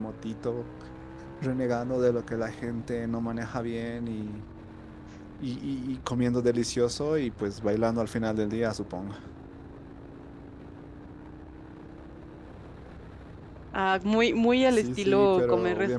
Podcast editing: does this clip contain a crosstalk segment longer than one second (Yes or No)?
Yes